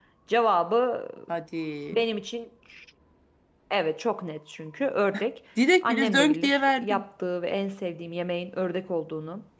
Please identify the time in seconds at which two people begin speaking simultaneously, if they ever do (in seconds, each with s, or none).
5.8 s